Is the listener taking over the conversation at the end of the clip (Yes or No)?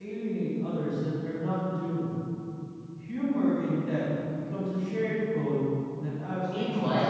Yes